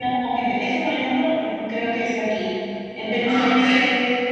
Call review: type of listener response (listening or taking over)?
listening